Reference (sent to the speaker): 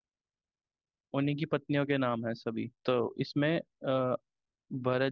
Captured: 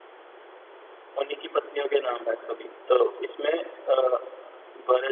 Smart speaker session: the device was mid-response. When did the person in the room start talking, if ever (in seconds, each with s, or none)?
none